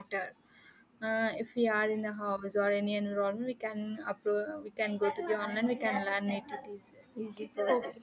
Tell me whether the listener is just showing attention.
No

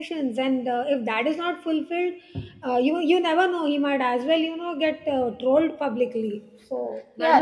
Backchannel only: No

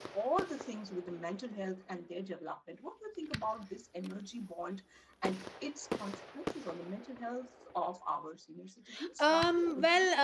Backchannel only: No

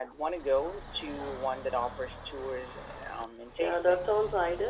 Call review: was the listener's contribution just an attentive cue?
No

